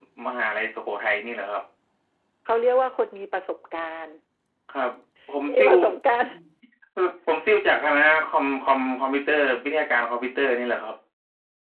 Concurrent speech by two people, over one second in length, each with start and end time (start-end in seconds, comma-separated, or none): none